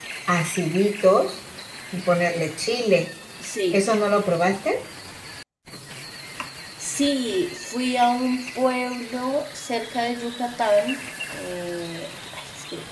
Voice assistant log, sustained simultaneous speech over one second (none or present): none